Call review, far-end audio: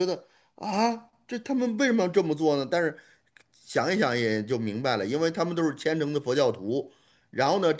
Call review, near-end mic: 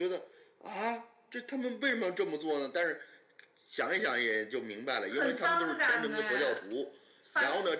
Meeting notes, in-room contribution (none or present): present